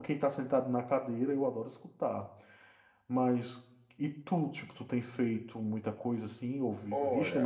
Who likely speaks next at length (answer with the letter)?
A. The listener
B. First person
A